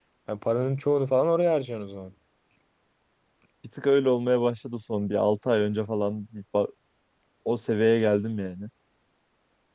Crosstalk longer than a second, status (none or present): none